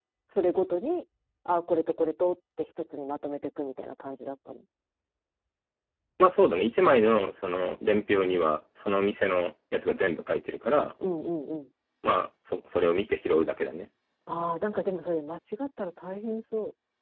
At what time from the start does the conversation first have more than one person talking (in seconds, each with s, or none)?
none